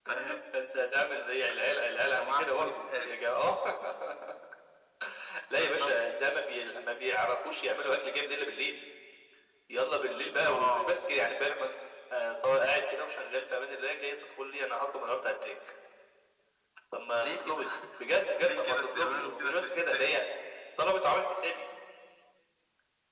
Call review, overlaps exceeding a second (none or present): present